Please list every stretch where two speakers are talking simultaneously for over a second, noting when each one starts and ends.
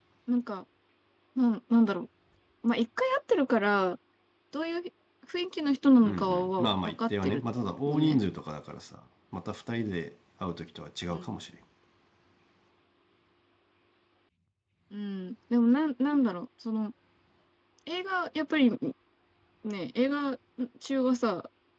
6.0-7.4

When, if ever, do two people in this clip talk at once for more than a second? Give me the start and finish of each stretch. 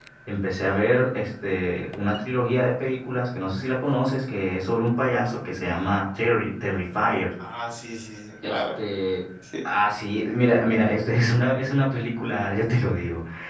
none

